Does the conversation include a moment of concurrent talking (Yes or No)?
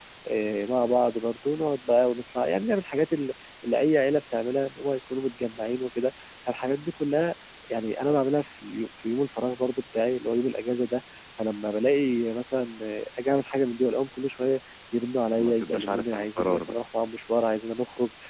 Yes